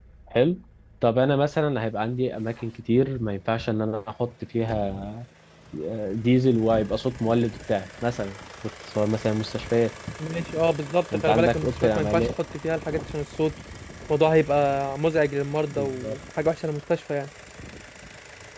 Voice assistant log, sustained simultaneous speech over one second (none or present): present